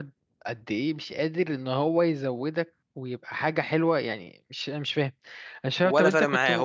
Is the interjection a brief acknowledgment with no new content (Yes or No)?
No